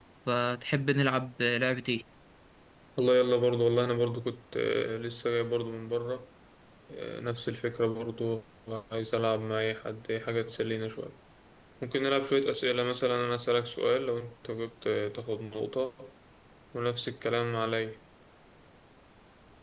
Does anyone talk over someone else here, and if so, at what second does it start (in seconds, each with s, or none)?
none